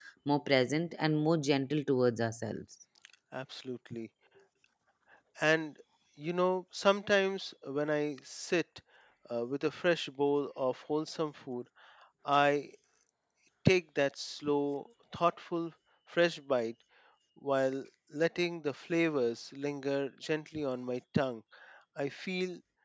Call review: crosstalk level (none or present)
none